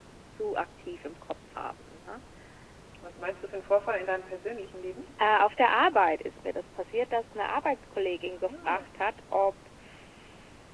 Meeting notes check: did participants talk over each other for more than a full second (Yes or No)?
No